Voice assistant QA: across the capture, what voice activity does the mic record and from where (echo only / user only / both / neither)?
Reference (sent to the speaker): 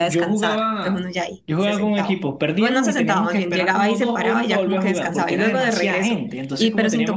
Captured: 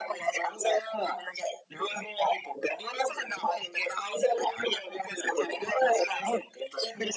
echo only